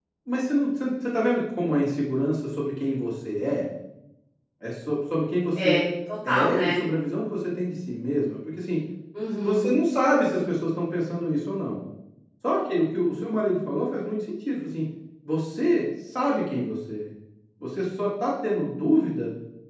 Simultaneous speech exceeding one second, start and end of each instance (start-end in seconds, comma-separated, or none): none